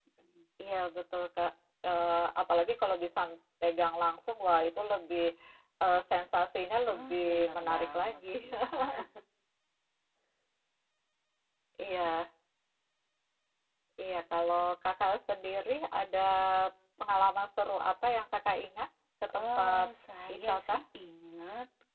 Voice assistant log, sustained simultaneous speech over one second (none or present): present